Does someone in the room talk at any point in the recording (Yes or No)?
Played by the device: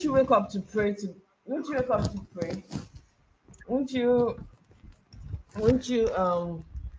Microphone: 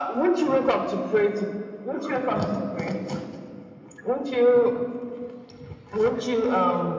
No